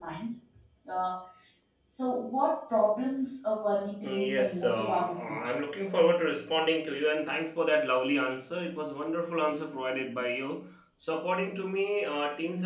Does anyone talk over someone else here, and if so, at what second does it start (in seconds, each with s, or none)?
4.0 s